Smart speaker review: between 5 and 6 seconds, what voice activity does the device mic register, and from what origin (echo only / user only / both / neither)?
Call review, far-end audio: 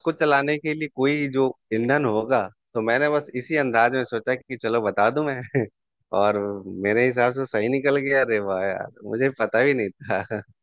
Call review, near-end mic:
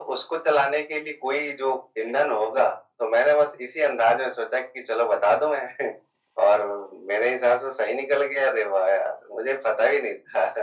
echo only